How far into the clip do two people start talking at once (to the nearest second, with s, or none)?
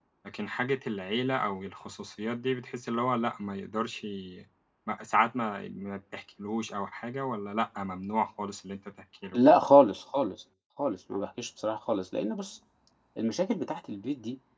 none